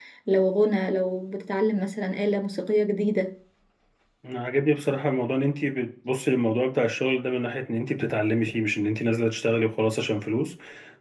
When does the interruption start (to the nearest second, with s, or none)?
none